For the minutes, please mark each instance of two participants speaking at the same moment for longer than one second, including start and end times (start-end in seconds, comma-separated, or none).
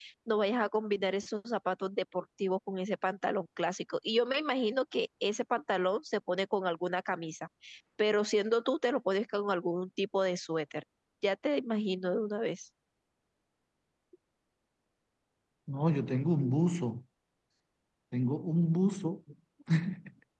none